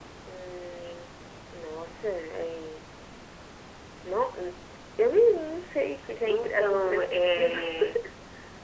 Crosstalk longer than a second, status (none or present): present